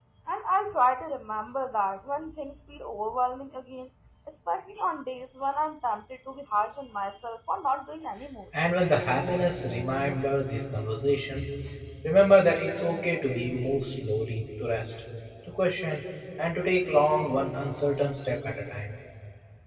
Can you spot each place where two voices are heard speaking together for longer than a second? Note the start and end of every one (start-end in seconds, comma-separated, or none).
none